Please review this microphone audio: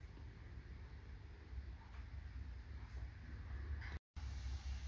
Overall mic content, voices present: neither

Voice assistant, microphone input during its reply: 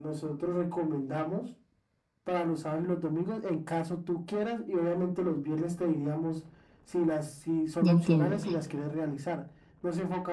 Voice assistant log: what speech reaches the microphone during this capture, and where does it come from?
both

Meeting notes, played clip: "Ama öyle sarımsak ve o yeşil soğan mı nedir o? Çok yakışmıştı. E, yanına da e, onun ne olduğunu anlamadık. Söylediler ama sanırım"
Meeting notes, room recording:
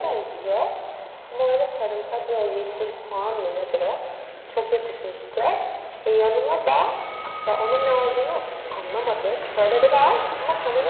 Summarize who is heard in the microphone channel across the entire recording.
echo only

